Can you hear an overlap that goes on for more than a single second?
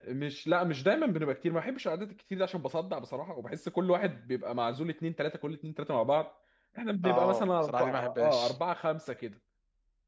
Yes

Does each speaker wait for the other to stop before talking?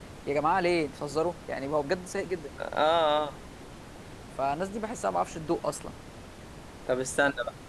Yes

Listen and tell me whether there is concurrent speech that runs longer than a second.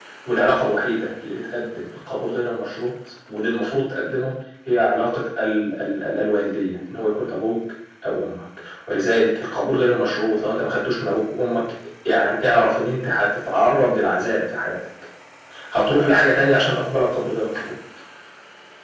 No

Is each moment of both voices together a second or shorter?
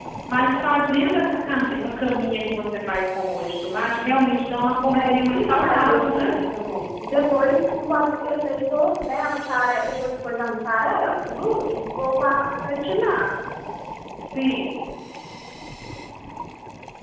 No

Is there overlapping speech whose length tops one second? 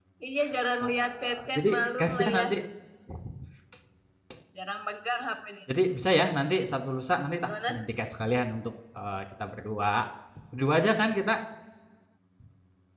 Yes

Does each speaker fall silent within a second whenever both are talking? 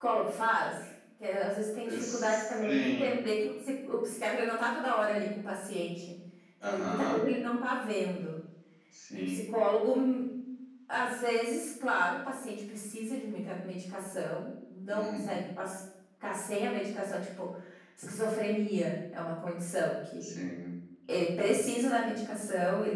No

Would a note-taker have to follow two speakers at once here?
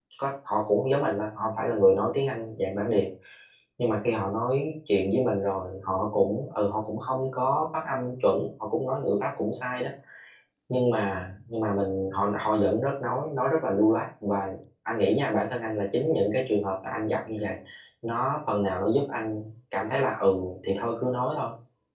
No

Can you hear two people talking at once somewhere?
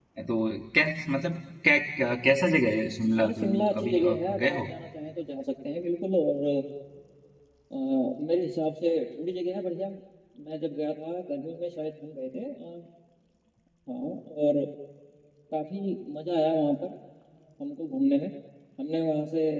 Yes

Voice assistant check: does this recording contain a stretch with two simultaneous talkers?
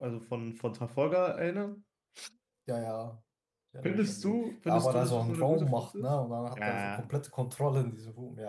Yes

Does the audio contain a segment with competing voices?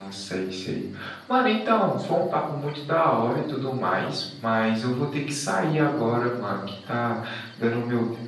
No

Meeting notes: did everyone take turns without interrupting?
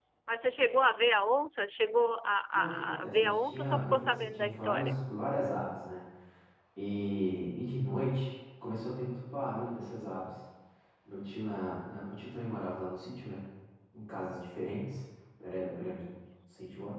No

